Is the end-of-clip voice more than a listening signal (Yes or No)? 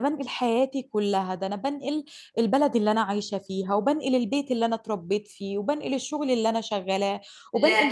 No